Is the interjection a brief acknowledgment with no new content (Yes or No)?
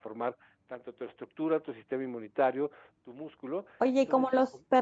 No